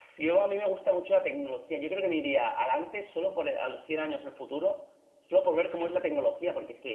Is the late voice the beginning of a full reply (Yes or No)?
No